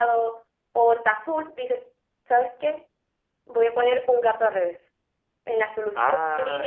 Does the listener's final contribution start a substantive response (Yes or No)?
Yes